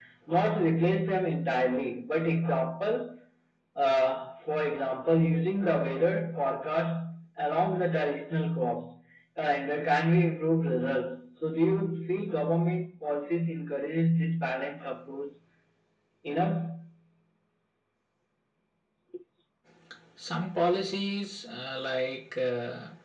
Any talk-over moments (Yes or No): No